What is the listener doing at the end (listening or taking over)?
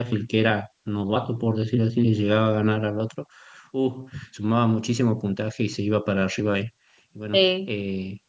listening